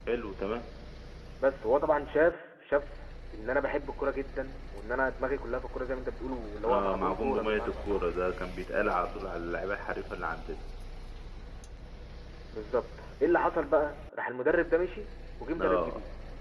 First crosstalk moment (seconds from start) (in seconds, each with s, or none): 6.7 s